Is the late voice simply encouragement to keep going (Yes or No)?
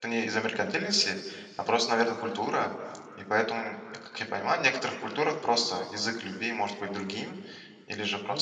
Yes